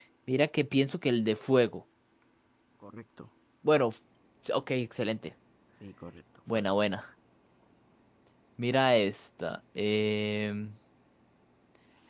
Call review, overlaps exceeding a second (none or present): none